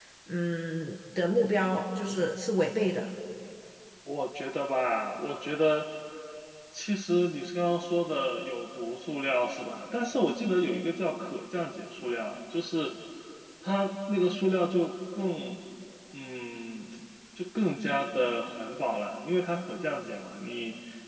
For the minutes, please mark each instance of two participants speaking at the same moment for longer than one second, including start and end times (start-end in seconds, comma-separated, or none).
none